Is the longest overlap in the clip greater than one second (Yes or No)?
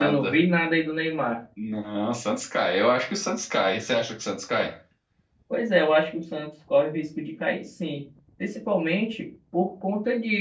No